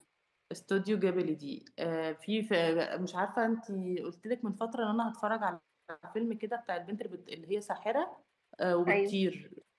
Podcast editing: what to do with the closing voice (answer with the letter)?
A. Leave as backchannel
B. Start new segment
A